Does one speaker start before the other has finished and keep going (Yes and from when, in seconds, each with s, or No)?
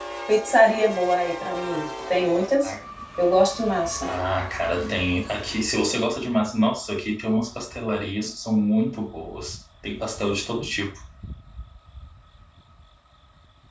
No